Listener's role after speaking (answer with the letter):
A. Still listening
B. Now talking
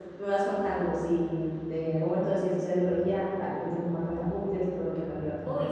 B